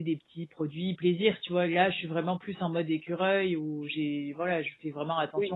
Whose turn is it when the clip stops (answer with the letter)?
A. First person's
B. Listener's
B